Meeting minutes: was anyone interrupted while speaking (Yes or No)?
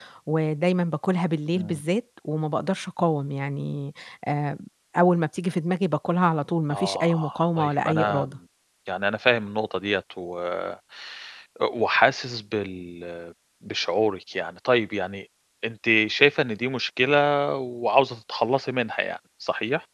Yes